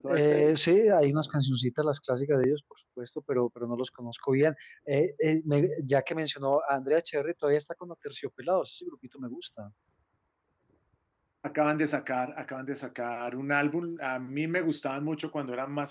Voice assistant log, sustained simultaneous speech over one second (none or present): none